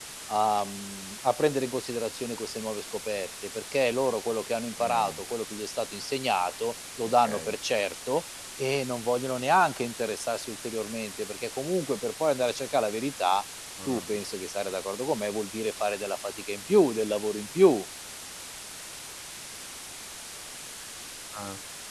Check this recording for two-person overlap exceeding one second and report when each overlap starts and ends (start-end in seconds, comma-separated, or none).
none